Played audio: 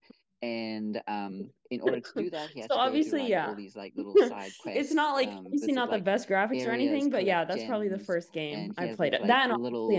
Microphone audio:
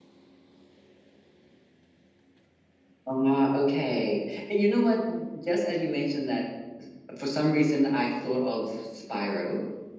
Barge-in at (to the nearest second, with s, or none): 3 s